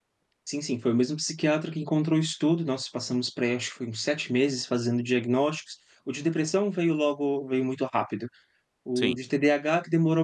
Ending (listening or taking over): listening